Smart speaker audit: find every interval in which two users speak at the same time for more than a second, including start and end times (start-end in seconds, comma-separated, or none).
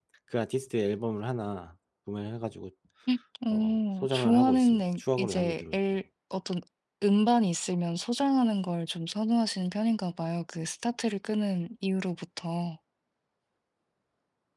3.5-5.8